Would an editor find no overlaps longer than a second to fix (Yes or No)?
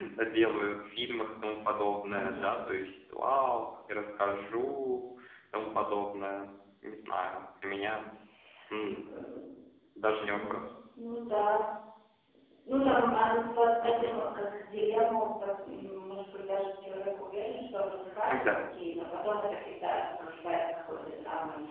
Yes